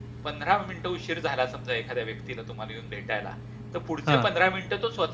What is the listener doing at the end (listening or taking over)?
listening